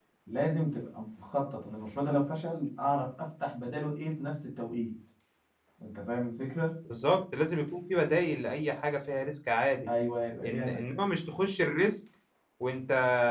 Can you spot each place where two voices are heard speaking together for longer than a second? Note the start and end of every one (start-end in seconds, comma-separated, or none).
none